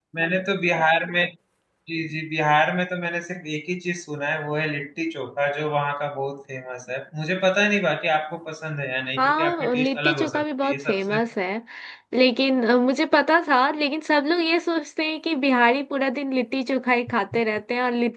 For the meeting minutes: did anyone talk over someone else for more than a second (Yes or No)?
Yes